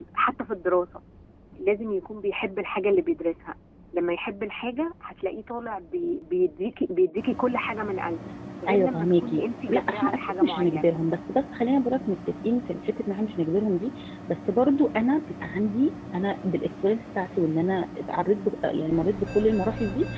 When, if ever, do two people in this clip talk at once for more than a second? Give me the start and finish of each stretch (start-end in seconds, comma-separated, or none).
8.7-10.9